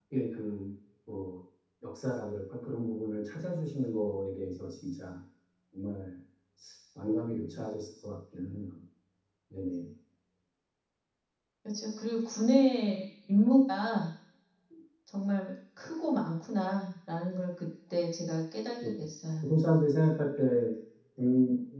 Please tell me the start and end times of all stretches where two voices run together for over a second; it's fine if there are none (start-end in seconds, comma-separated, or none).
none